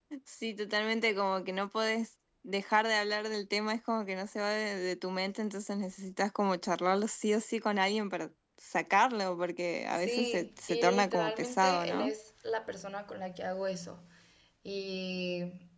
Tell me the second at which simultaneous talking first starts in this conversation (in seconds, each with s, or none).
9.9 s